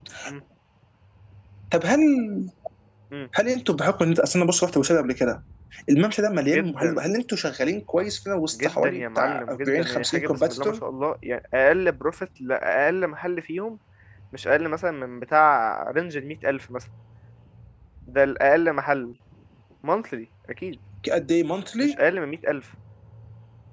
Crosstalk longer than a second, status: present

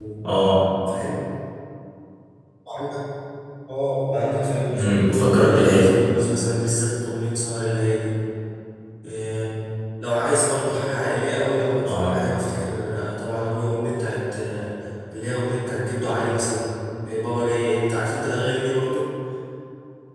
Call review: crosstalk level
present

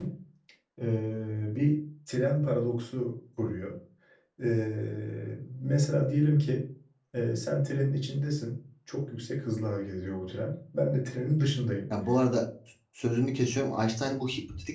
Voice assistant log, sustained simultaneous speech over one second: none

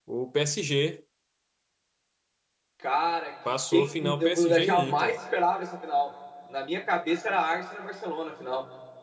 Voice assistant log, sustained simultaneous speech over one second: present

